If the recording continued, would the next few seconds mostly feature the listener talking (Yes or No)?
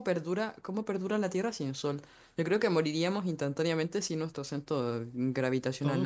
Yes